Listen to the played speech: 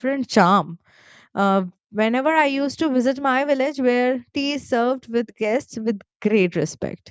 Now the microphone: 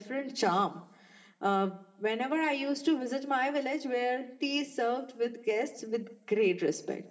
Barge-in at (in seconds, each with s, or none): none